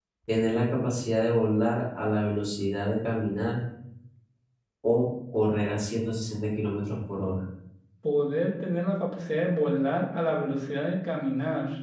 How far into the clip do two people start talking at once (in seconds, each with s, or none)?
none